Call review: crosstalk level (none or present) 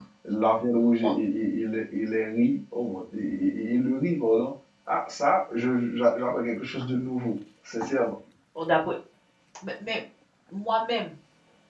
none